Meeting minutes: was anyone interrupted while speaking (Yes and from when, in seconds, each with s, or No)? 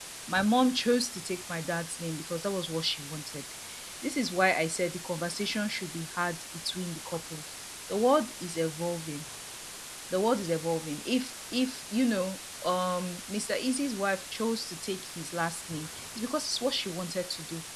No